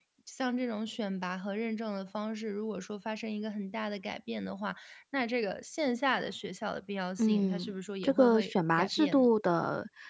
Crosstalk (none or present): present